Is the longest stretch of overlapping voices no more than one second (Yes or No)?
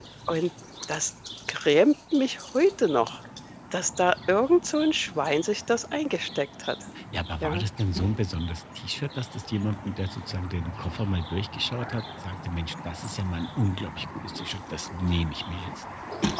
Yes